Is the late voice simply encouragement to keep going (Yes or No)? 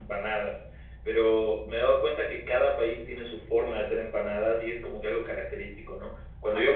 Yes